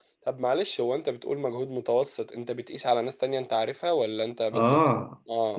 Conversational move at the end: taking over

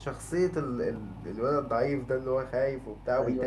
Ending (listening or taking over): taking over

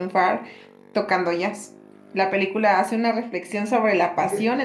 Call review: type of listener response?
listening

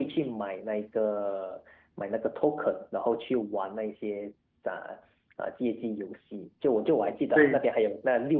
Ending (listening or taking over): listening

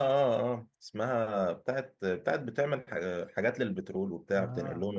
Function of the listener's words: taking over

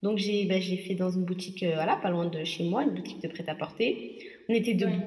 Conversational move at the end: listening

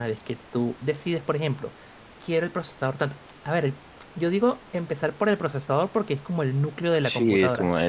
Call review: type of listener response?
taking over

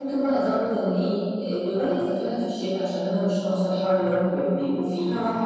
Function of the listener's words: listening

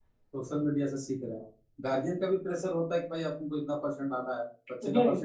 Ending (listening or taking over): listening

